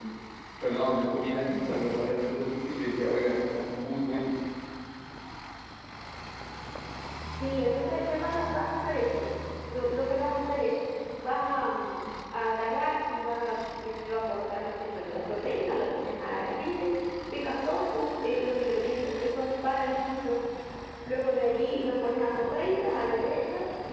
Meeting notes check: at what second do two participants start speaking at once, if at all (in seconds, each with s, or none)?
none